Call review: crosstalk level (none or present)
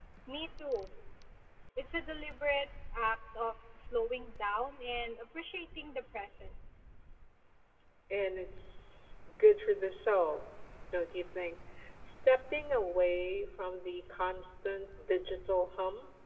none